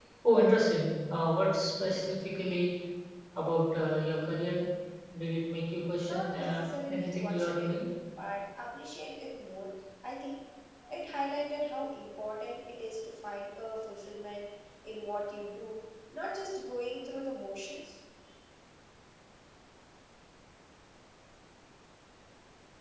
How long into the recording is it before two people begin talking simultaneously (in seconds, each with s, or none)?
6.0 s